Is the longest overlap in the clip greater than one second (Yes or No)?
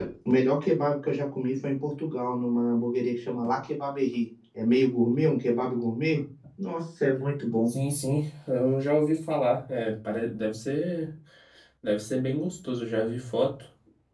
No